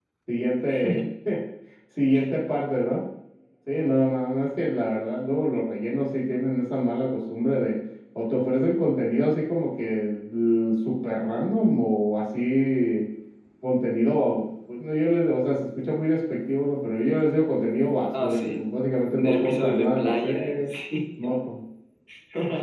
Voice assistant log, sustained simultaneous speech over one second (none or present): present